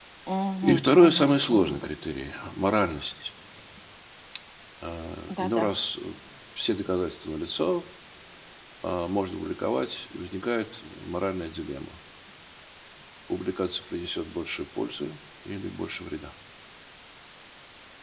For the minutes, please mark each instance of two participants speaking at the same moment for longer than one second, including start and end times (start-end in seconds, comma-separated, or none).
0.6-1.9